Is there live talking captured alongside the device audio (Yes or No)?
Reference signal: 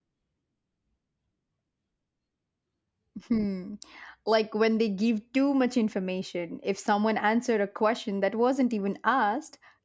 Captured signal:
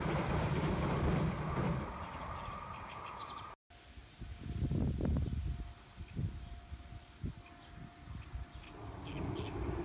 No